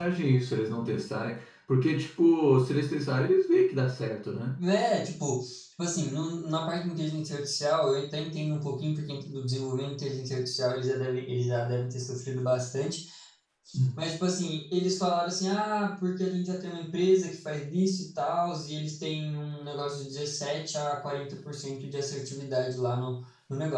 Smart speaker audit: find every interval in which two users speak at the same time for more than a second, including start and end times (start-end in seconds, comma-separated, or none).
none